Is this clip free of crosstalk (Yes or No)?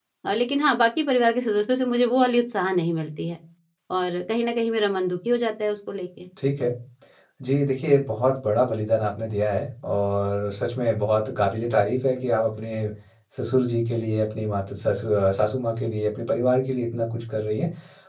Yes